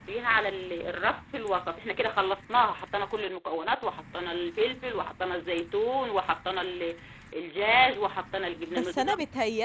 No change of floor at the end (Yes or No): No